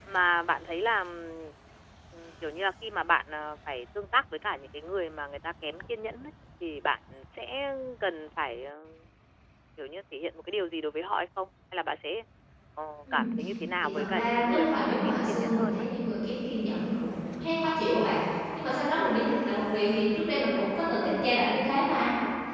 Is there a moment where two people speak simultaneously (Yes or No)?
Yes